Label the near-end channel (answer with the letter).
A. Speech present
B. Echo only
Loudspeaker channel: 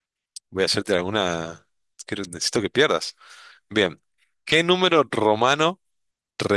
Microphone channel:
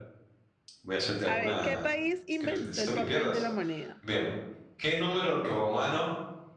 A